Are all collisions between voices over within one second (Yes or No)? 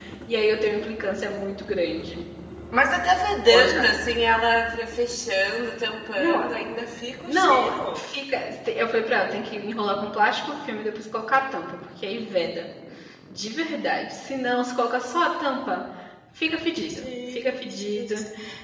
No